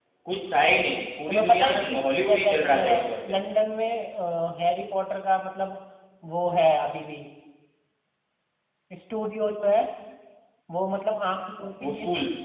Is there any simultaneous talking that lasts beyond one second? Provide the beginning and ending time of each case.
1.3-3.4

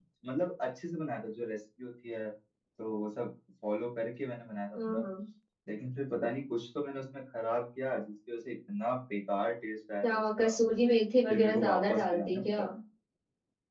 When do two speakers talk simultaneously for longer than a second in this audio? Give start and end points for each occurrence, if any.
11.3-12.6

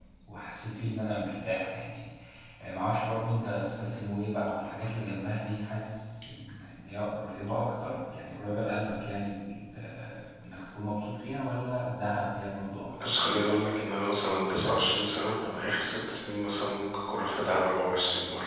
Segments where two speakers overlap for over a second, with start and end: none

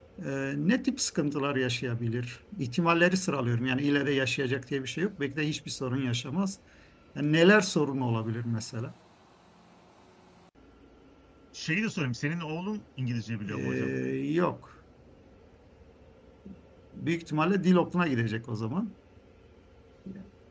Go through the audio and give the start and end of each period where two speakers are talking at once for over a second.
none

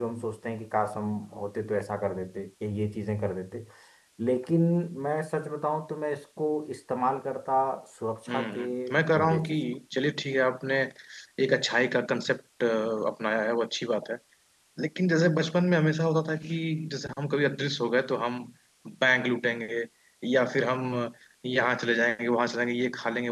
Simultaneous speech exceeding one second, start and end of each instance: 8.3-9.6

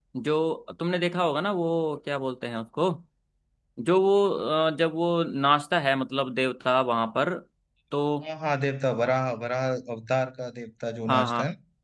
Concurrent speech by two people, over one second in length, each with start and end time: none

